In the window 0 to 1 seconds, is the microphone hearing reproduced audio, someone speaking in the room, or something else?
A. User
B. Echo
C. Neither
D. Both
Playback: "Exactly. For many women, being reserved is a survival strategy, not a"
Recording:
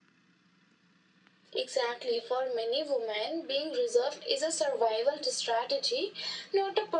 C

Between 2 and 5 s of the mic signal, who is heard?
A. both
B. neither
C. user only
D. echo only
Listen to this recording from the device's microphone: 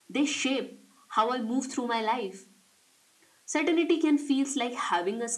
D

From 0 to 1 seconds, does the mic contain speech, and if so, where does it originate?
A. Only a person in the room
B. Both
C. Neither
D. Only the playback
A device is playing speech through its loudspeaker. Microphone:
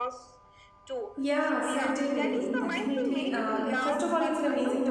D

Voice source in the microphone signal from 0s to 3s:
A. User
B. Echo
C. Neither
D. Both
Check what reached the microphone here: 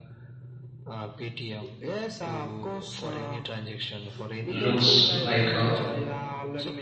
B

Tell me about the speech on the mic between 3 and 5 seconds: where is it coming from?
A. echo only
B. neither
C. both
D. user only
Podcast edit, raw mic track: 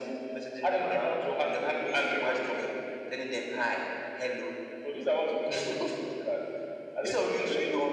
A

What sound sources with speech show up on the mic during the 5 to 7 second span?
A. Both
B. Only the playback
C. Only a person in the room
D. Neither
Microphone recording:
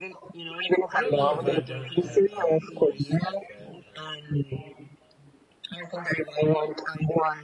B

